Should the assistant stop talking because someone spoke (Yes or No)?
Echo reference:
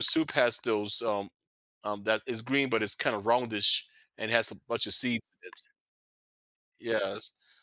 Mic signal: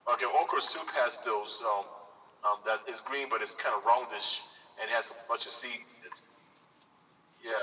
No